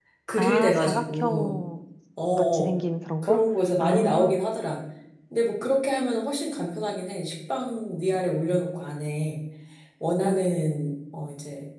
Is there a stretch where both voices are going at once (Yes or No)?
Yes